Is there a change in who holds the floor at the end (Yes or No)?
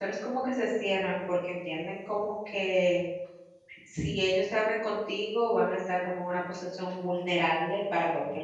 Yes